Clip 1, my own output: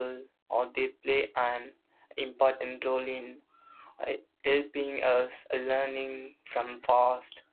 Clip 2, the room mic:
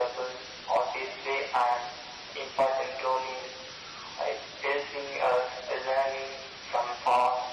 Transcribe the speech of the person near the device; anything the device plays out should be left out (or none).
none